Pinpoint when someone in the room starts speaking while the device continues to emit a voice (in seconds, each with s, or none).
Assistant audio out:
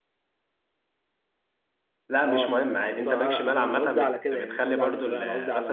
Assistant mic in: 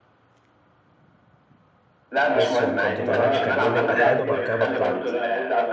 2.3 s